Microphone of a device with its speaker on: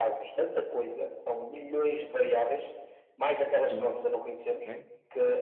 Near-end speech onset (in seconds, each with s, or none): 3.6 s